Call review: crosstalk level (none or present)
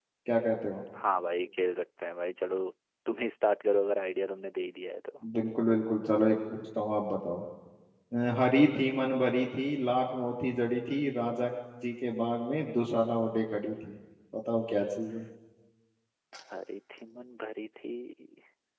none